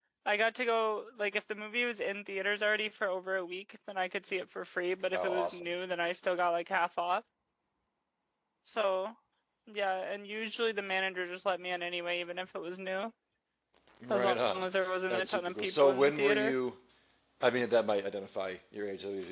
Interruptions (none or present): present